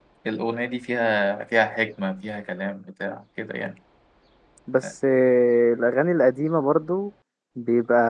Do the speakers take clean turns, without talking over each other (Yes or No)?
Yes